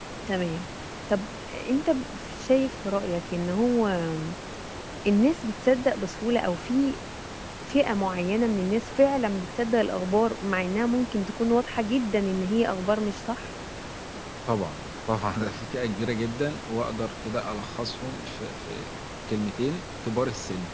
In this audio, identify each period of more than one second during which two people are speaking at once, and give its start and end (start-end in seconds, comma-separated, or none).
none